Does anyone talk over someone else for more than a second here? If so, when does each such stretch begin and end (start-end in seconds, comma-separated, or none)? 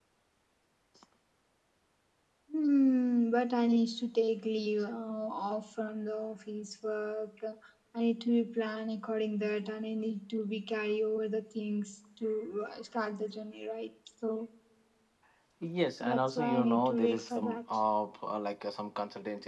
16.0-17.6